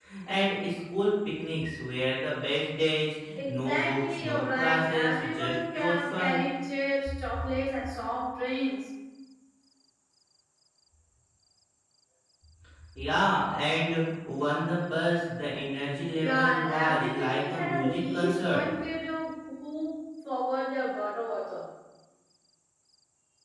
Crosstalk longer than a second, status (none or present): present